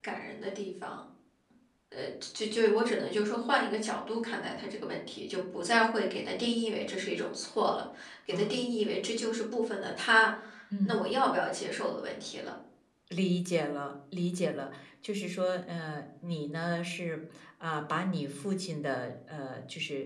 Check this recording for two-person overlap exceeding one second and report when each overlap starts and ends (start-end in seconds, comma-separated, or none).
none